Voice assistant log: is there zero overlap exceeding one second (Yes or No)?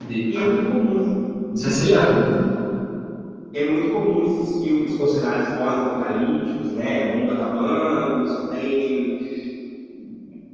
Yes